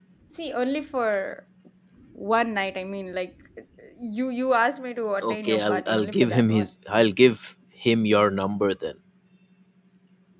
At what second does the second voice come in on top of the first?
5.2 s

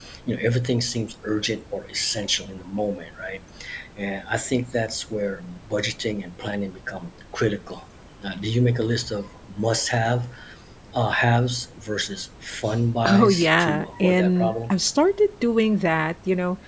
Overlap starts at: 13.0 s

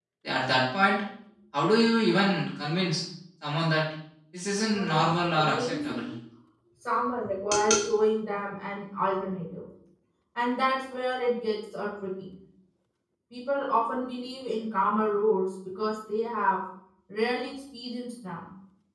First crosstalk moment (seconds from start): 4.7 s

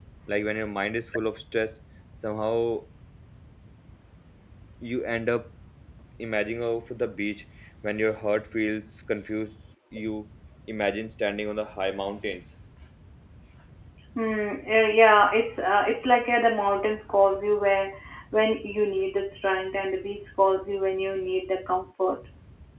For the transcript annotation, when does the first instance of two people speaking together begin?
none

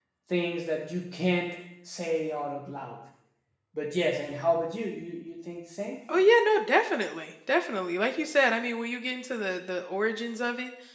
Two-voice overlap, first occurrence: none

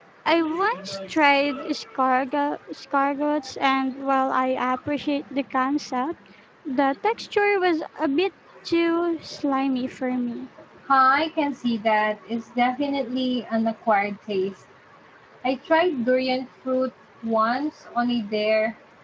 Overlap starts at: none

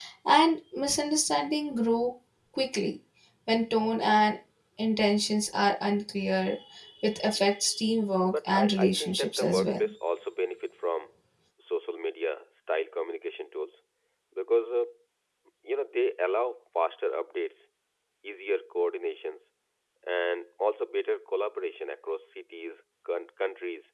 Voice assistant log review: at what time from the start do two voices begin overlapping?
8.2 s

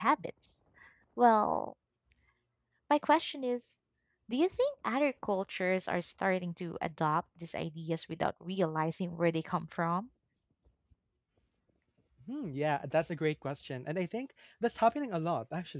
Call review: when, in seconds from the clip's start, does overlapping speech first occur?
none

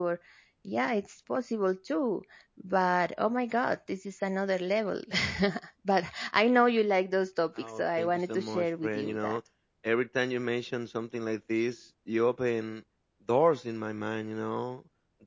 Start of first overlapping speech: 7.6 s

